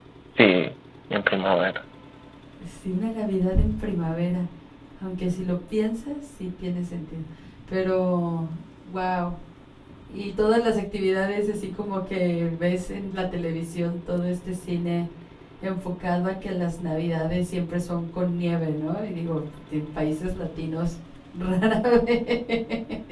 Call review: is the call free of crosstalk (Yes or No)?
Yes